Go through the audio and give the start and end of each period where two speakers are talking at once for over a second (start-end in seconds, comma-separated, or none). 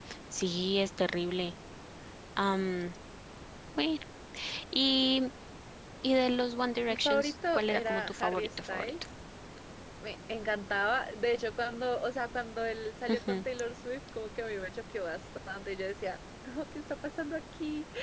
6.9-8.9